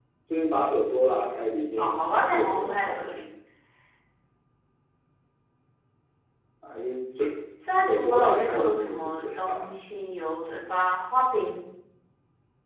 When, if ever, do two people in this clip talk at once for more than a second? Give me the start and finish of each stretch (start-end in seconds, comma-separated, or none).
1.8-3.0, 7.9-9.7